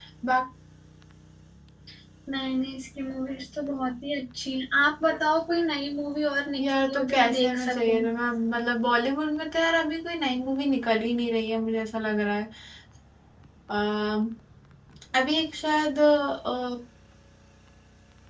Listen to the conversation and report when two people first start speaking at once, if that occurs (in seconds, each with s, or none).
6.5 s